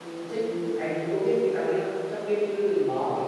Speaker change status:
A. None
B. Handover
B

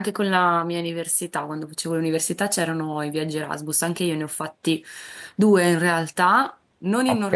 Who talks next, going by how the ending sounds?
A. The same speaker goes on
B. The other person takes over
A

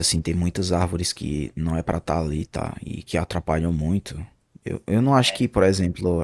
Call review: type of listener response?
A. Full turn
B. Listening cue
B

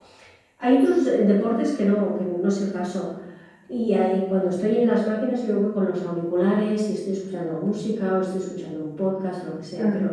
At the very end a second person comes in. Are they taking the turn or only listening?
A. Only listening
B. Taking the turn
A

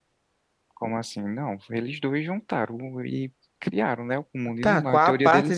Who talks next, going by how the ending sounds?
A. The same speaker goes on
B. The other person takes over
B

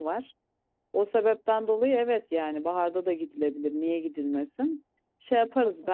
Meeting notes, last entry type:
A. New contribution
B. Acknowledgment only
B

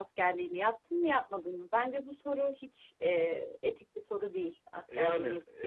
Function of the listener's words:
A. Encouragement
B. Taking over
B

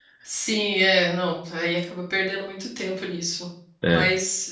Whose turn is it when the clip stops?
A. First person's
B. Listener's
A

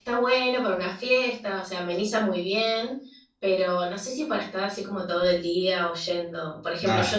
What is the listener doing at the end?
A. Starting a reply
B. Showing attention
B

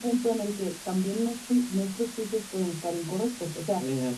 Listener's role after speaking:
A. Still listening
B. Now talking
A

